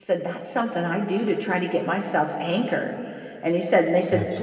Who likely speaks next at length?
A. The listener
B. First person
B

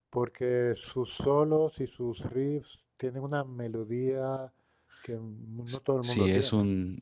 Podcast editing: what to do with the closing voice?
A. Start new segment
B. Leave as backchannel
A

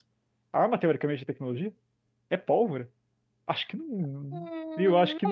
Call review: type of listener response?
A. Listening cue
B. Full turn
B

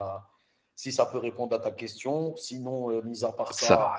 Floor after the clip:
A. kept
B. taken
A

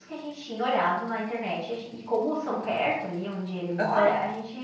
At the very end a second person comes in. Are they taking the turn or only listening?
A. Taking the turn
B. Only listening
B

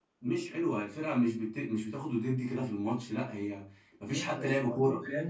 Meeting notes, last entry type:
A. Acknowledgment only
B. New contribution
B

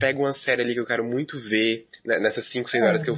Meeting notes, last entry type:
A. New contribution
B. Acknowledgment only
B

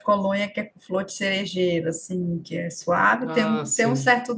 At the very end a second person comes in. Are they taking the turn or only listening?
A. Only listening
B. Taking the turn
A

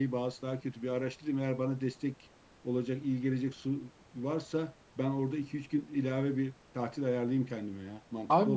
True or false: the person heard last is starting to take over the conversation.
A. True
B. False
A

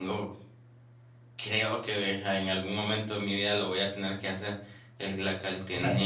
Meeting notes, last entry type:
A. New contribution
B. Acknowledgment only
B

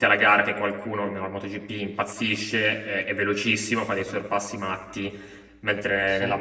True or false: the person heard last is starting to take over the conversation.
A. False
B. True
A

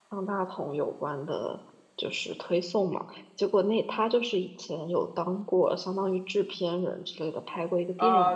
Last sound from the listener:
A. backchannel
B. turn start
B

